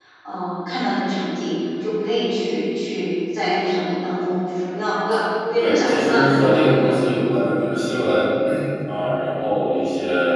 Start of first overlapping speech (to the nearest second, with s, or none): 6 s